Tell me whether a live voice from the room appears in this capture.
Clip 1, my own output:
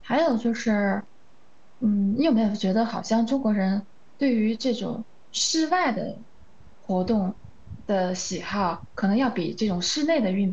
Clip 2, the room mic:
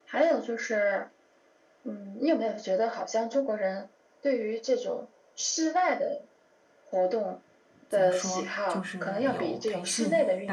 Yes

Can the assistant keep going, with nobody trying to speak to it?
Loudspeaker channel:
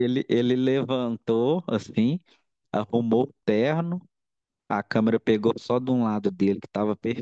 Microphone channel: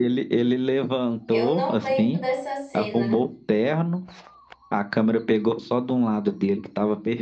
No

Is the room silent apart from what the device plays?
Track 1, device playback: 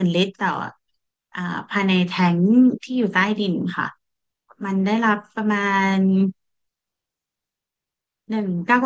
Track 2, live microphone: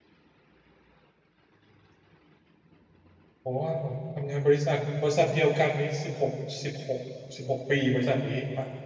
No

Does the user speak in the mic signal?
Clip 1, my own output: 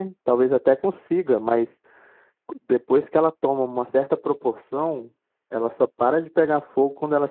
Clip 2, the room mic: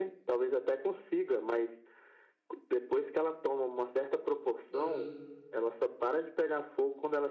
Yes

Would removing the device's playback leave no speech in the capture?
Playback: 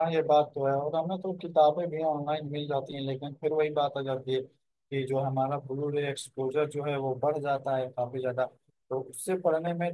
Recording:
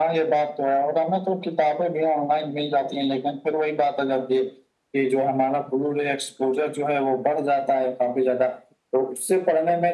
Yes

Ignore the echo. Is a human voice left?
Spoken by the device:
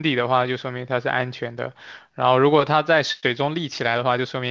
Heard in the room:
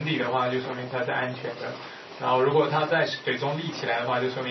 No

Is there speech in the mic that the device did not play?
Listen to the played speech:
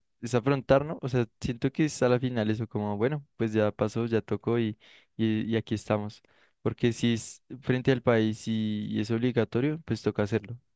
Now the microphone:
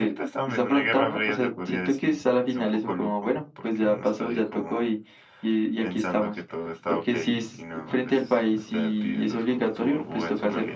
Yes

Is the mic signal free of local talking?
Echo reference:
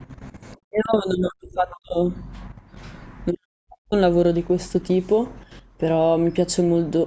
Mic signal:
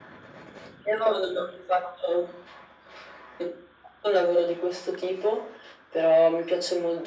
Yes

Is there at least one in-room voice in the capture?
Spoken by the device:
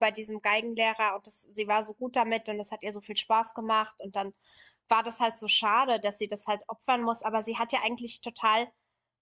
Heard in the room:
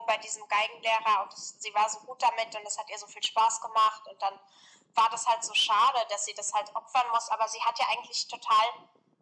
No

